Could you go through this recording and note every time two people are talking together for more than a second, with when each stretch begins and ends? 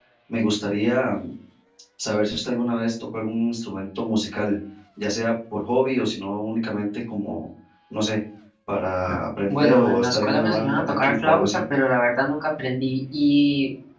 9.5-11.4

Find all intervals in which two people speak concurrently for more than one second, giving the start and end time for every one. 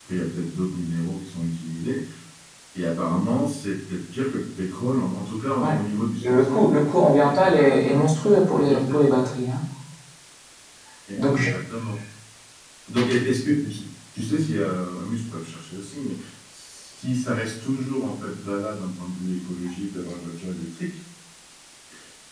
7.3-9.0

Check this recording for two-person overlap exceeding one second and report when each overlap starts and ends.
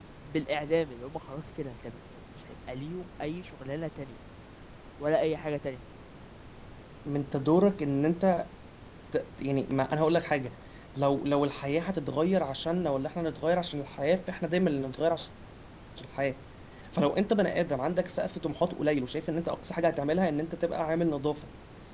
none

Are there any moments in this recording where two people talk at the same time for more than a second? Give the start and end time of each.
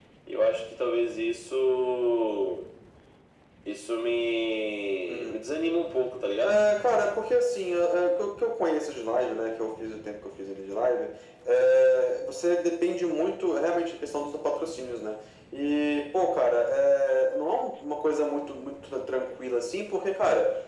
none

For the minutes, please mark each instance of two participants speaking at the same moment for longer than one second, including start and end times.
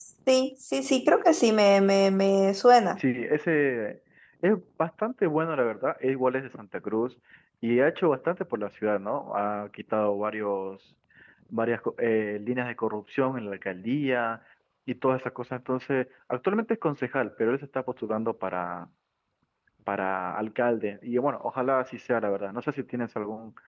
none

